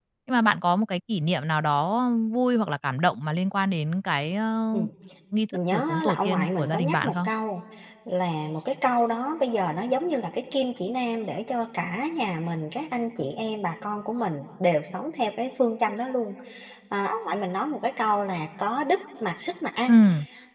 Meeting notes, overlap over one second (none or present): present